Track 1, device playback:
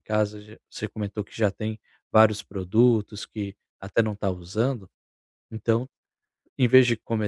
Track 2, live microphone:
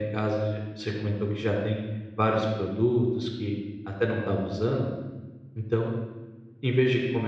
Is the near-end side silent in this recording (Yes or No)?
Yes